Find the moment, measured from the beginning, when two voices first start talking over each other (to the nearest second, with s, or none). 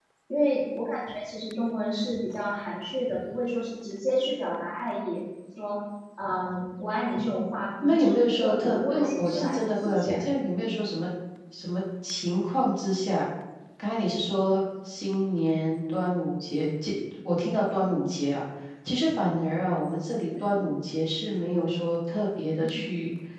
8 s